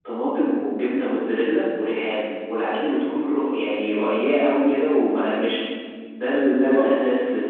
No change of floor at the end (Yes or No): Yes